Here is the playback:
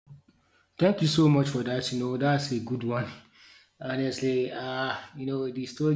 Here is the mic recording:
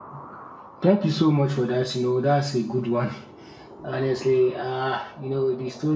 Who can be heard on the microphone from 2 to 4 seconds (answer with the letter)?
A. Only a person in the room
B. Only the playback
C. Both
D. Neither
B